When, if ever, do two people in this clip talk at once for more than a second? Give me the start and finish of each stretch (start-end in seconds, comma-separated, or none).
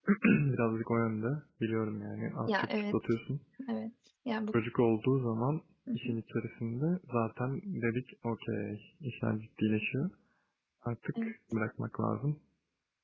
none